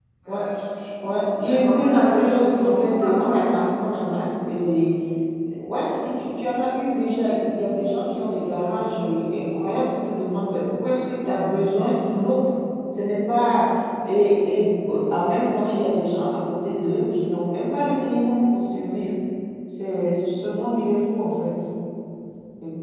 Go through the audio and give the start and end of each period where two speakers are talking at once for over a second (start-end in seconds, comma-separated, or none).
1.4-3.4